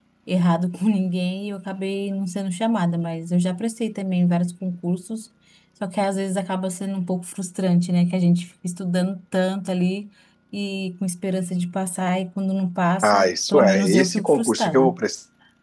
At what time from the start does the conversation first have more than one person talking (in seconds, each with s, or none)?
13.0 s